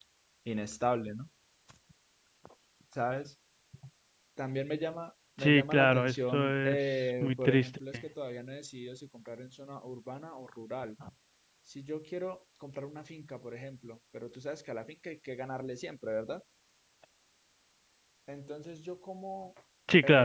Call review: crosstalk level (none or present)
present